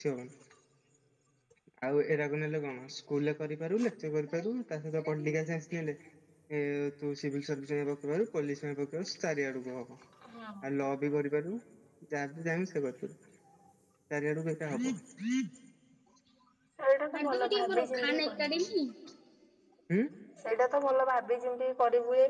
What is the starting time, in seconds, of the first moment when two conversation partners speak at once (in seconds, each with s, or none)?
17.2 s